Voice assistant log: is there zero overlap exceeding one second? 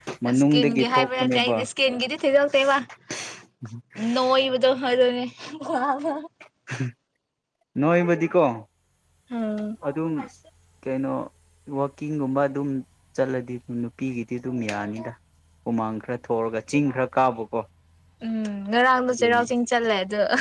No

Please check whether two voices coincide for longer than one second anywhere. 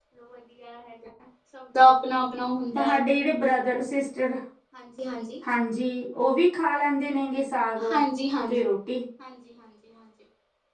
No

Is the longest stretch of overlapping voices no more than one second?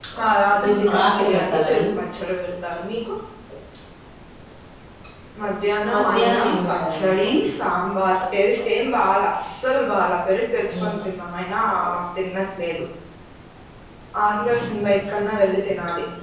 No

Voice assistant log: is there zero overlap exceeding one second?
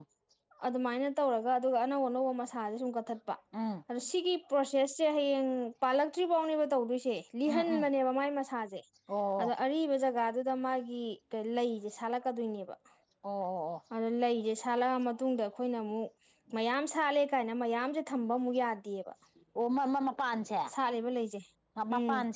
Yes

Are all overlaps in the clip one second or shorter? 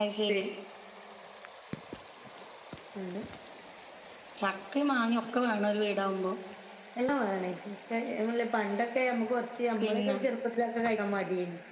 Yes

